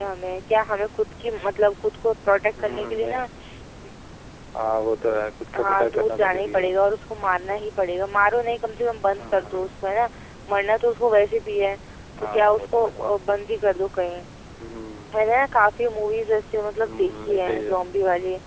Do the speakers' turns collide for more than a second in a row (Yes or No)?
Yes